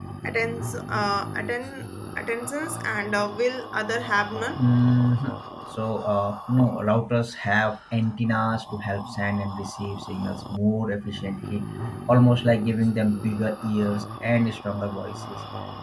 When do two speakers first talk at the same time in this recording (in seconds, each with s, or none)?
none